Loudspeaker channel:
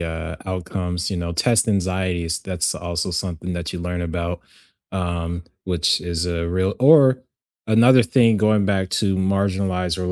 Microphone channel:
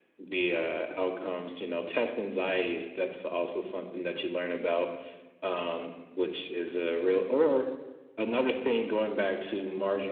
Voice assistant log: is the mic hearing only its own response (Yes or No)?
Yes